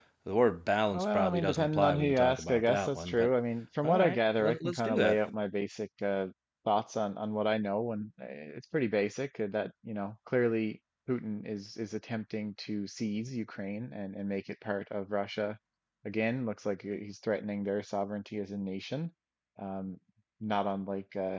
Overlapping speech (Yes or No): Yes